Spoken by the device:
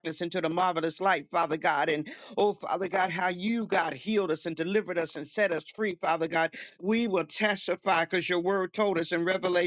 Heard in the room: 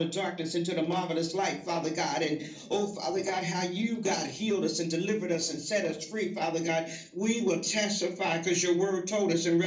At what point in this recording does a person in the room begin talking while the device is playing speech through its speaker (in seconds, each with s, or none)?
none